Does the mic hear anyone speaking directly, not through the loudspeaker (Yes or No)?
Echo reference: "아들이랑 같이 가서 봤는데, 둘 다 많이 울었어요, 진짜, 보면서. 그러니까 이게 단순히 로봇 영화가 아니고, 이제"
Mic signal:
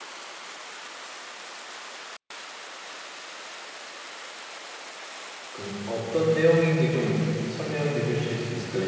Yes